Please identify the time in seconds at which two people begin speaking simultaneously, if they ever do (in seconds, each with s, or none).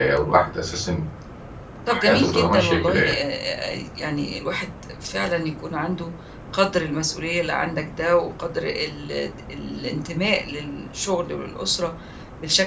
1.9 s